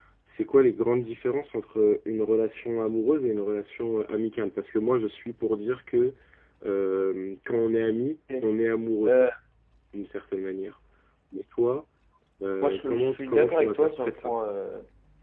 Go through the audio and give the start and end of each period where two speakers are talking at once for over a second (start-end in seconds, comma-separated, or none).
12.6-14.3